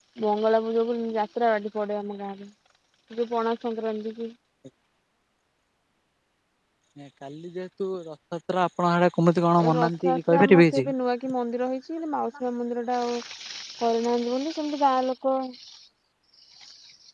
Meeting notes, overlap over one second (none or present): present